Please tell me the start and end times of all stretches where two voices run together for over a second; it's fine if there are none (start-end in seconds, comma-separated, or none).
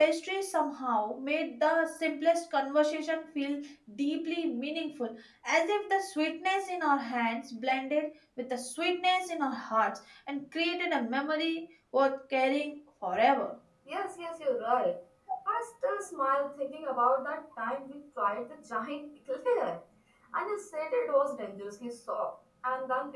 none